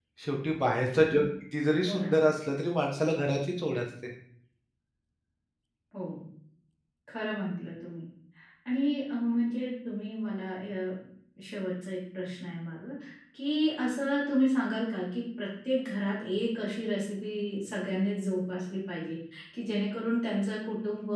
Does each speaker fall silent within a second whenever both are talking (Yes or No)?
Yes